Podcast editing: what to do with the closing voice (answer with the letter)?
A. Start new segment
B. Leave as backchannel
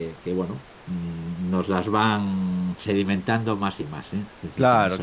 A